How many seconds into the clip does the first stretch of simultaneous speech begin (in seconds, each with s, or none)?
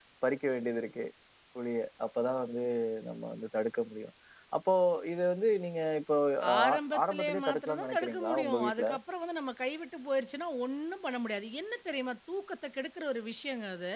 6.6 s